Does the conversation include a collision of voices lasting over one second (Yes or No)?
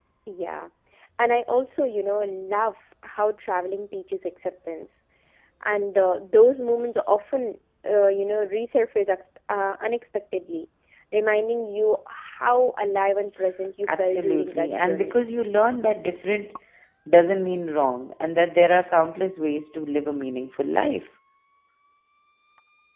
Yes